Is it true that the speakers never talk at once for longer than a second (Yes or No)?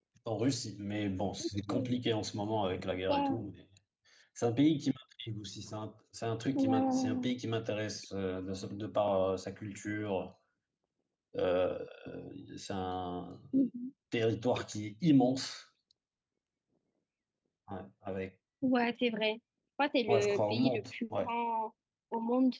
No